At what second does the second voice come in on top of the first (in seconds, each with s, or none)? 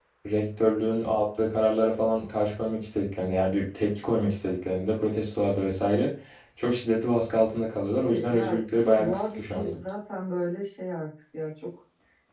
8.0 s